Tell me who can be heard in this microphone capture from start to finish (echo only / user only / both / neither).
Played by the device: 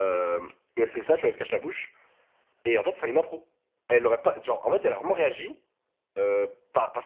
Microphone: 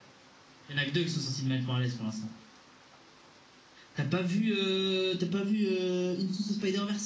user only